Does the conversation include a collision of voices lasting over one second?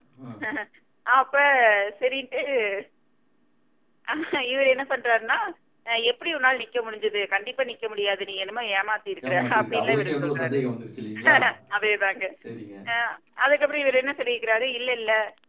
Yes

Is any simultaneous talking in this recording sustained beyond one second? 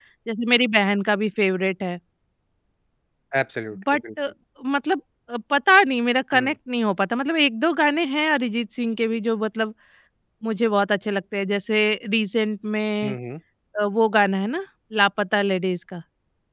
No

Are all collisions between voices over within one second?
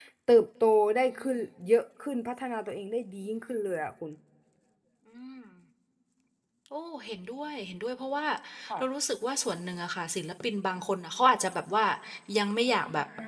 Yes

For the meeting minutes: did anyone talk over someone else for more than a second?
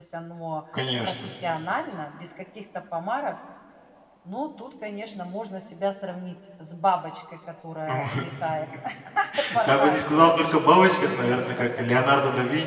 Yes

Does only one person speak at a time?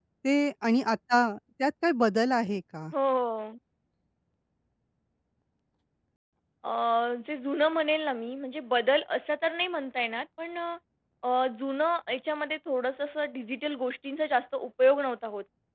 Yes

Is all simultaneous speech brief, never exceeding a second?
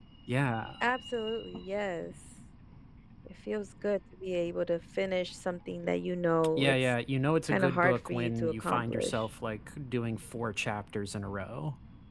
No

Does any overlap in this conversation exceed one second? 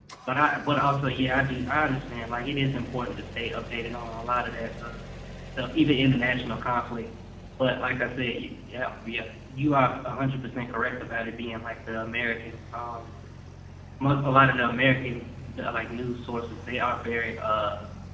No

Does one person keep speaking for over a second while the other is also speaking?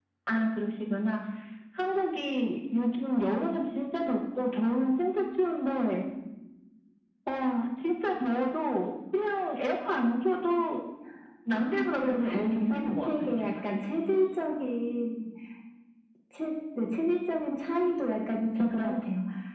Yes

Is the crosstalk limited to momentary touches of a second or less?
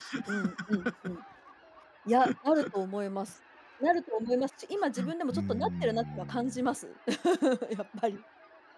No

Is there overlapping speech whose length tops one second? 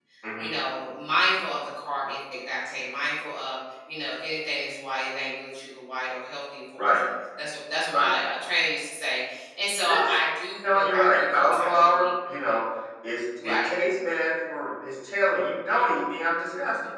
Yes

